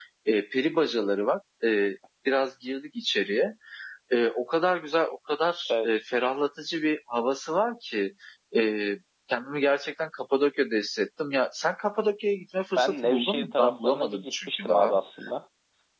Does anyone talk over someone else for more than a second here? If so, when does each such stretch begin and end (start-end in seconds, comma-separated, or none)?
12.8-14.9